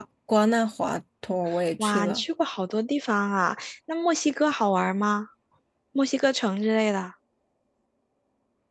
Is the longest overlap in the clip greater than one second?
No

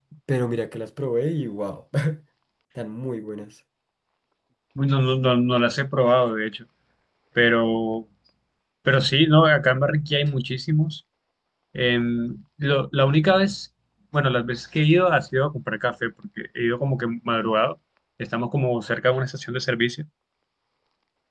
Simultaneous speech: No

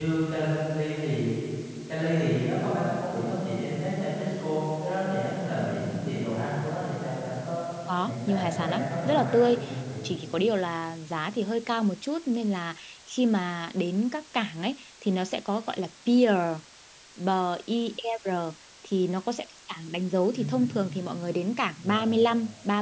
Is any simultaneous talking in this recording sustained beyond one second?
Yes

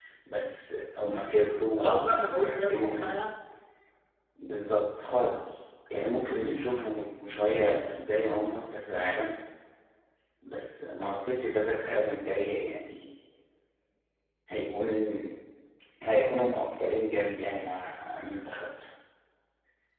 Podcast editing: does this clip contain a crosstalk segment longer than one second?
Yes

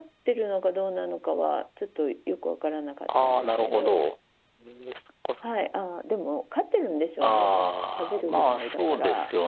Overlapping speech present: Yes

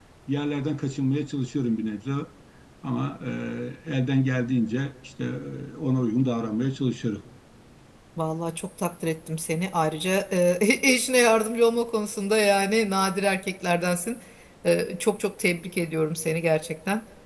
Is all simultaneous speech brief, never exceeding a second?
Yes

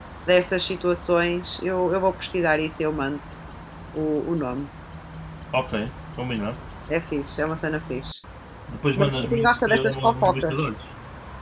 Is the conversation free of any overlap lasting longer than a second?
No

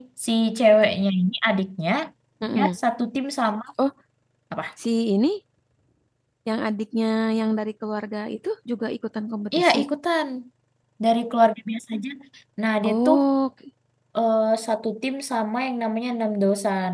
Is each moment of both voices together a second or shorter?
Yes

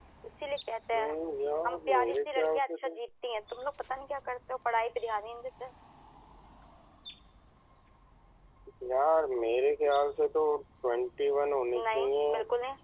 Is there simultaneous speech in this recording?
Yes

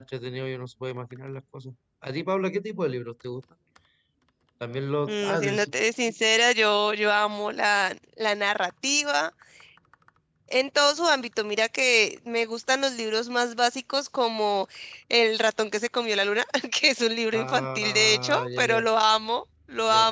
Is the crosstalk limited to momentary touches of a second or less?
No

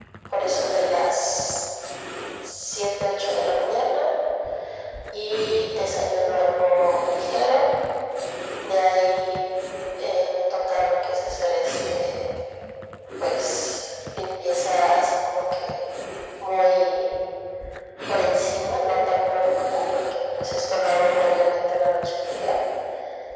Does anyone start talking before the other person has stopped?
No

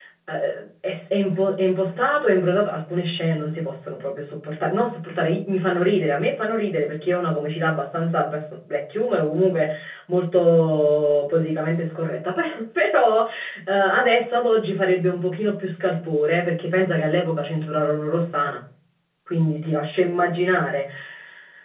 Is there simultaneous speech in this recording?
No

